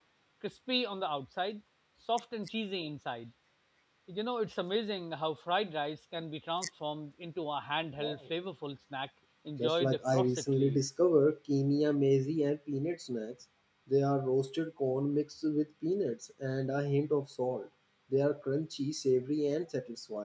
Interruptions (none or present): present